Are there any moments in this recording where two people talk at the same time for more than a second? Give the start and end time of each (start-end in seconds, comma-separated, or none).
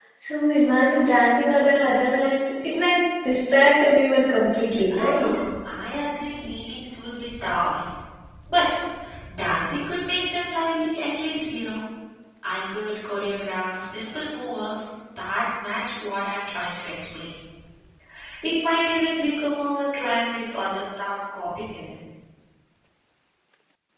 none